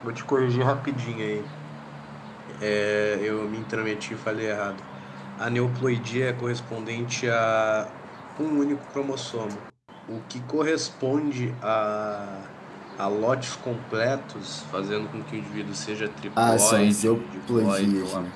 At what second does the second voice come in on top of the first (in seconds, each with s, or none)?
16.4 s